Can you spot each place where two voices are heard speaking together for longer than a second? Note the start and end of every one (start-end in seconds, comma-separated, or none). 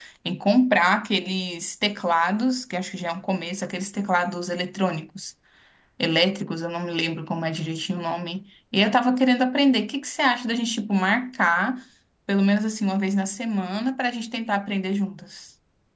none